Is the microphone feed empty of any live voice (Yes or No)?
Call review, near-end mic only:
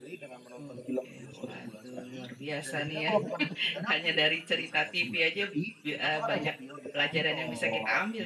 No